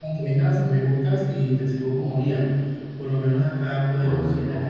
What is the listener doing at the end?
listening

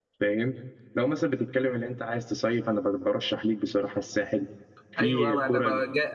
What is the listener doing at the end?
taking over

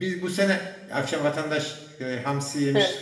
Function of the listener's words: listening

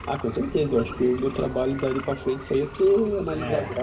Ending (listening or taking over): listening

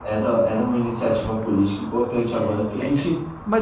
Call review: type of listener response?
taking over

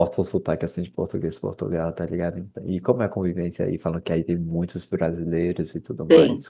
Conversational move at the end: taking over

